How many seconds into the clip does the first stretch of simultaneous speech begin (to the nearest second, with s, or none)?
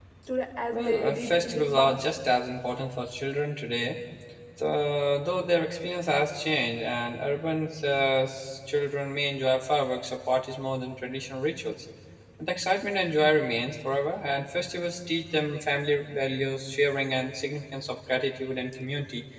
1 s